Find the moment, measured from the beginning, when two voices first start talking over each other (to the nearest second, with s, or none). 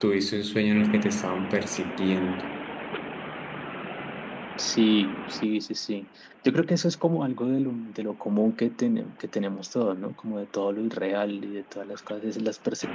none